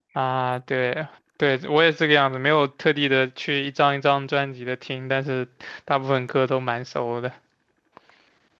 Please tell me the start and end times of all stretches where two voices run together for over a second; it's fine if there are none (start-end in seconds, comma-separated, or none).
none